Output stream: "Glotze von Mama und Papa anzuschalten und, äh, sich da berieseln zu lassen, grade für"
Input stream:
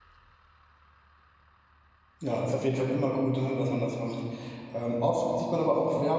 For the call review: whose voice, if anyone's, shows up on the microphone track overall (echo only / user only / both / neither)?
user only